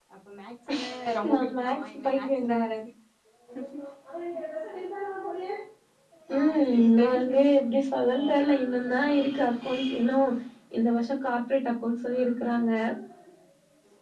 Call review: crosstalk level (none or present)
present